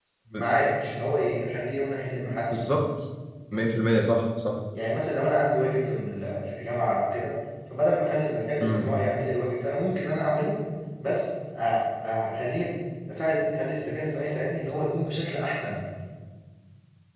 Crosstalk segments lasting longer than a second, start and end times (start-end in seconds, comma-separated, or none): none